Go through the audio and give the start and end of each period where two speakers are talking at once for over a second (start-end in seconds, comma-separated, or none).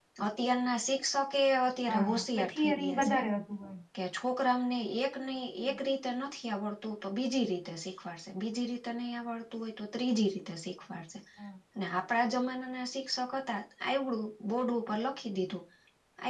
1.9-3.2